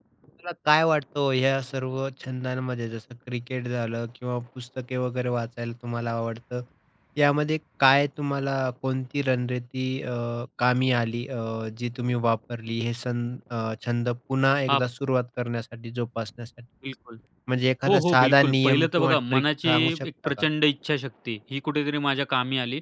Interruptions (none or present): present